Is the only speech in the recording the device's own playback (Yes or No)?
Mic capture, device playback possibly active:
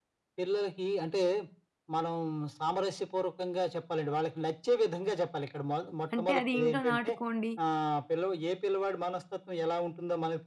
No